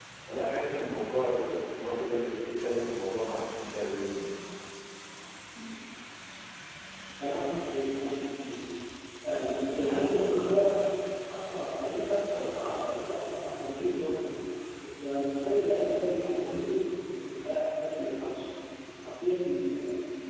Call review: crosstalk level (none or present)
none